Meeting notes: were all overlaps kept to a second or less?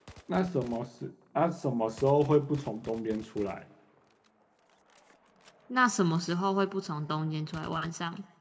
Yes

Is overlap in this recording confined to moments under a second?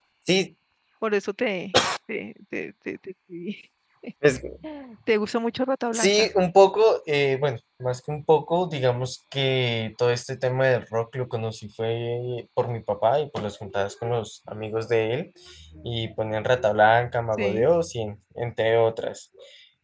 Yes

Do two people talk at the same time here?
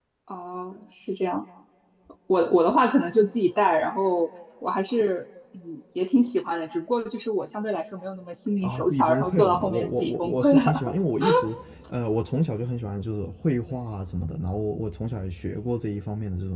Yes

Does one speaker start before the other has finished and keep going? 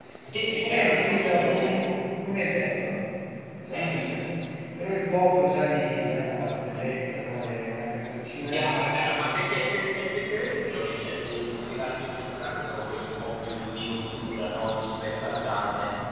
Yes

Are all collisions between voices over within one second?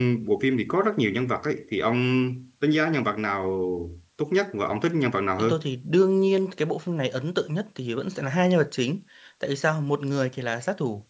Yes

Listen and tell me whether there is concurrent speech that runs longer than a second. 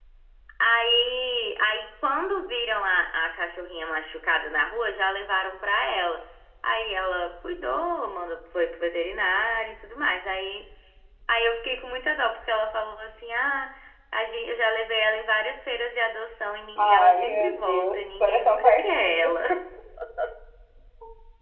Yes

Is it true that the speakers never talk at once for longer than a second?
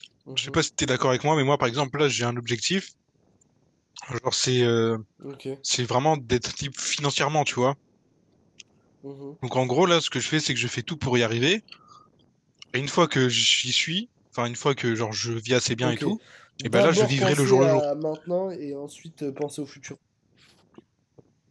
No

